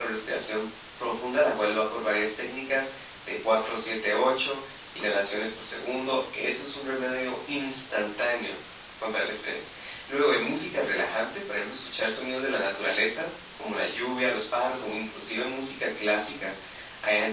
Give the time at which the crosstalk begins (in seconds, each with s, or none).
none